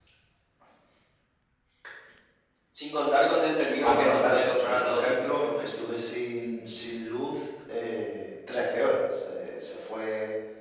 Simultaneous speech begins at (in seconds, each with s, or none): 3.7 s